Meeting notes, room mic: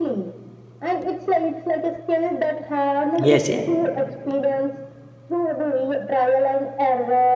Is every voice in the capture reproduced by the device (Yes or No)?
No